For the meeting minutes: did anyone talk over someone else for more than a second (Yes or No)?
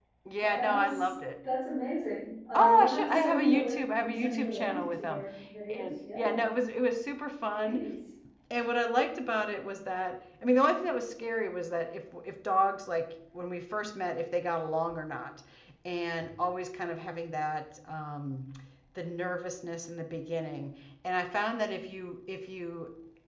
Yes